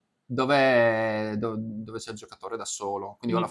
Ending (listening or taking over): listening